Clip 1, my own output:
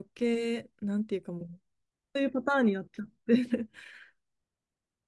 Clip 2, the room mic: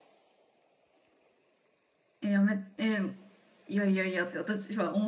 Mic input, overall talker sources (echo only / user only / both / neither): user only